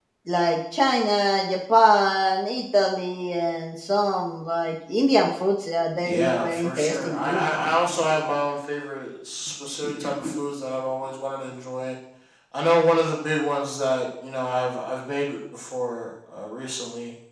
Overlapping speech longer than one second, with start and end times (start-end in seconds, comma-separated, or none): 6.0-7.5